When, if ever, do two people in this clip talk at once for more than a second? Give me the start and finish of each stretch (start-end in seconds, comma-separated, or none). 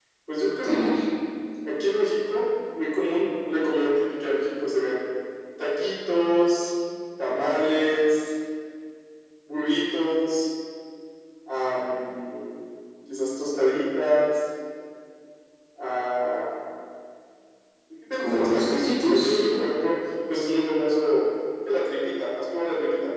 18.2-19.4